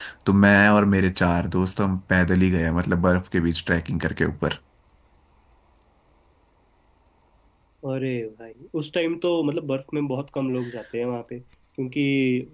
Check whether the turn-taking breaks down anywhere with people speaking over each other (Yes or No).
No